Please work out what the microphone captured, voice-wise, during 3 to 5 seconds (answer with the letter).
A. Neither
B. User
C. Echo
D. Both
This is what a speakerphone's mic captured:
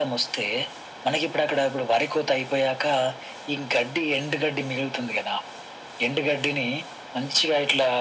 C